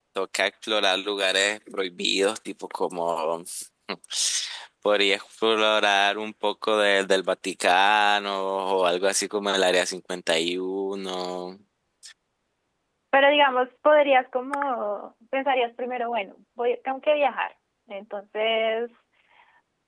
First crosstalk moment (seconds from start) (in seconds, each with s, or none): none